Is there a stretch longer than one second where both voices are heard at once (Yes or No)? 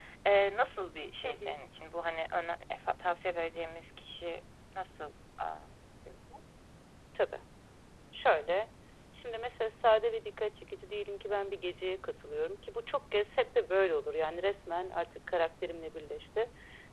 No